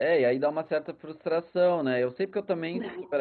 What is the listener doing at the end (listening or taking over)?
listening